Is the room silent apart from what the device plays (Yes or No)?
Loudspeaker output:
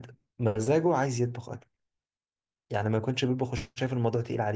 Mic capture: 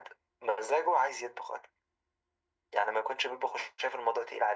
Yes